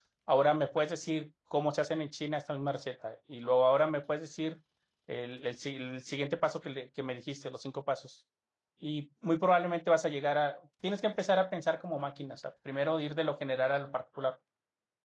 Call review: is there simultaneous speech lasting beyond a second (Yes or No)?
No